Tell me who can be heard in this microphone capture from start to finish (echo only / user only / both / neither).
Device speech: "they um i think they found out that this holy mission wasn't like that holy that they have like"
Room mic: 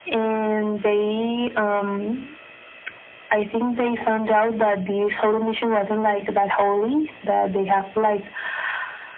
echo only